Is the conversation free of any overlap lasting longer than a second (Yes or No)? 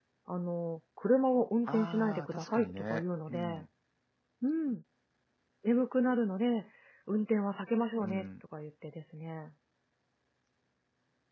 No